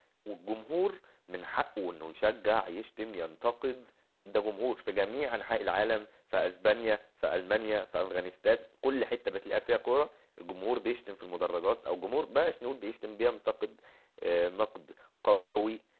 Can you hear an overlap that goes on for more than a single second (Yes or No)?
No